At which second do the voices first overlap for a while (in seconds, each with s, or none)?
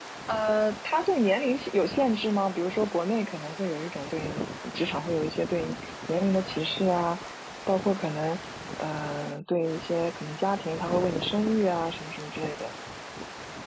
none